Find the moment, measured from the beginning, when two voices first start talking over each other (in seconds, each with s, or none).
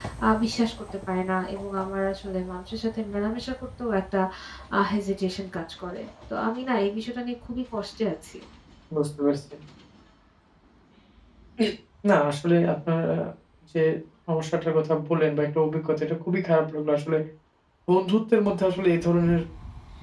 none